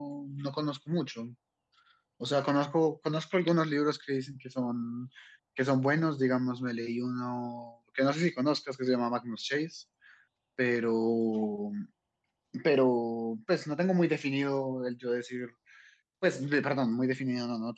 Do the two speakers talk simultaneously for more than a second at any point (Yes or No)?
No